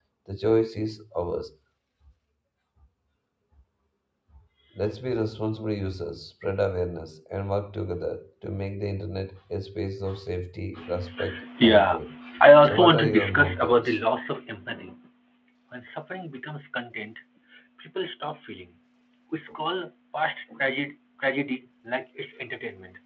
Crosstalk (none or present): present